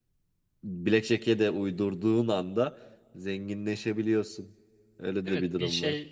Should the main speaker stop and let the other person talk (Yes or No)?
Yes